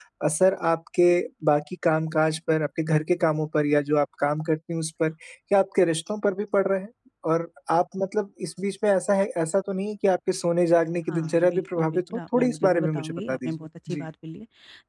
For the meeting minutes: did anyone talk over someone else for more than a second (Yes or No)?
Yes